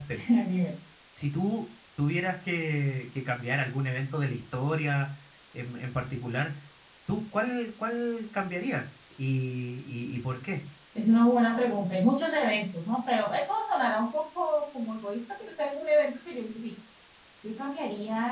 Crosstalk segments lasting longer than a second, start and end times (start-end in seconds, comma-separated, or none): none